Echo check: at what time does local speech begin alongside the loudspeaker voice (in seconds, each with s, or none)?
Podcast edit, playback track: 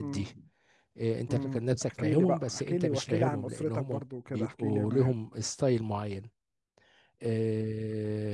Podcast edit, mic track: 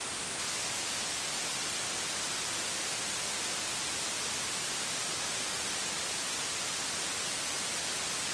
none